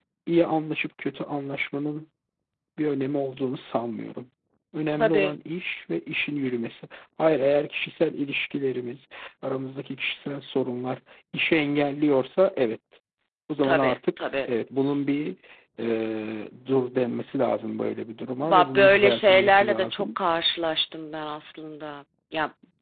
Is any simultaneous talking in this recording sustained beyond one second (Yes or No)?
Yes